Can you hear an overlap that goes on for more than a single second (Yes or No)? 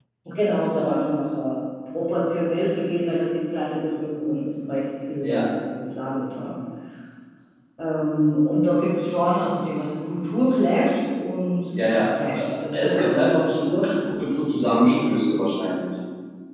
Yes